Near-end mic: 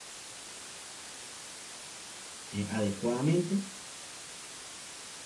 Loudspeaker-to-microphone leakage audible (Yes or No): No